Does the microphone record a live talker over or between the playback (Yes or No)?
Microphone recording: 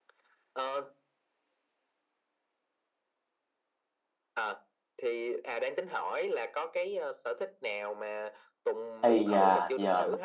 Yes